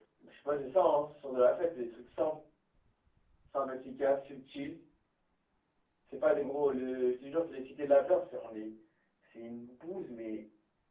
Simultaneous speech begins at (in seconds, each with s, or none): none